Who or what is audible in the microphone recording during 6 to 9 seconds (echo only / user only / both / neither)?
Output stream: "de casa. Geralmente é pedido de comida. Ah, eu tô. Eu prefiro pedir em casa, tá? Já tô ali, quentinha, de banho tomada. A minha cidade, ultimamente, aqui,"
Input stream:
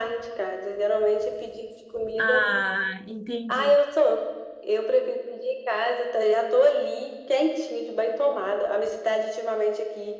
echo only